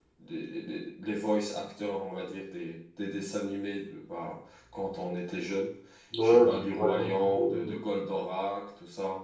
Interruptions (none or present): present